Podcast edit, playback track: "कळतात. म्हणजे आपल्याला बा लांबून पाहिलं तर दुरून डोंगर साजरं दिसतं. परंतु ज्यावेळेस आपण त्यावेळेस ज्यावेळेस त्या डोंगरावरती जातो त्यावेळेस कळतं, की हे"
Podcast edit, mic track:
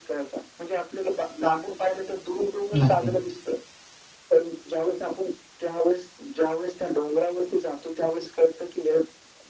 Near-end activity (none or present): present